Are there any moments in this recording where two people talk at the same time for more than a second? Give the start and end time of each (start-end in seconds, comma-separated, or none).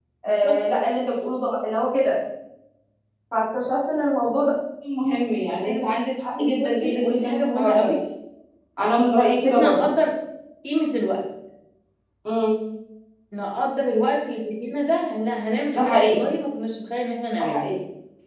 6.4-7.9